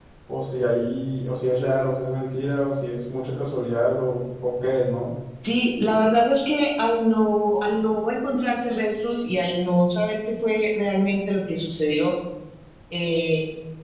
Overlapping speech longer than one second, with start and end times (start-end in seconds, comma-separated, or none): none